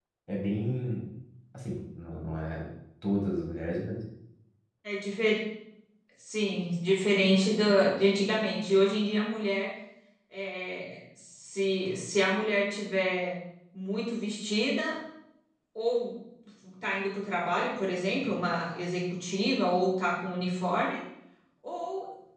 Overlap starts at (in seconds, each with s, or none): none